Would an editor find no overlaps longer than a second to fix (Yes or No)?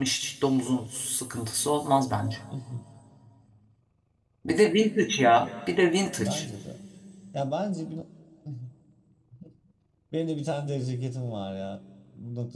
Yes